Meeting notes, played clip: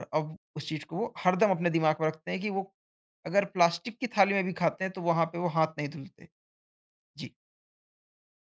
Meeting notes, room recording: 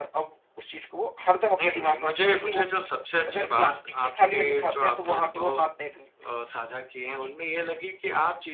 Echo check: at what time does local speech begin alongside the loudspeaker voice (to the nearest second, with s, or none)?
2 s